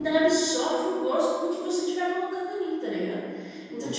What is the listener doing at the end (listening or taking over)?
listening